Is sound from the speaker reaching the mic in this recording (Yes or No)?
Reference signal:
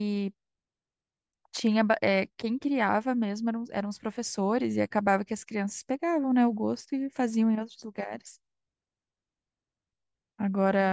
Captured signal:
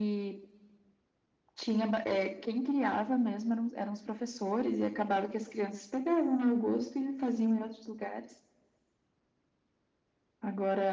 Yes